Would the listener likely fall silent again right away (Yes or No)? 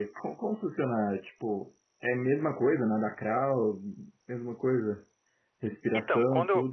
No